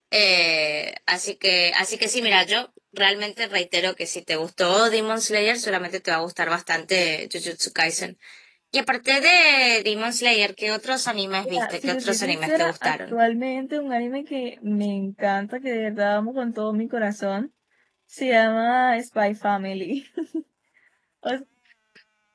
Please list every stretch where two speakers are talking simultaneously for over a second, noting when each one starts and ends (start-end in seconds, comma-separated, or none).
11.4-13.2